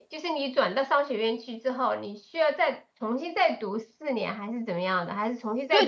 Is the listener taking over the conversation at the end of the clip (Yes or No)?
Yes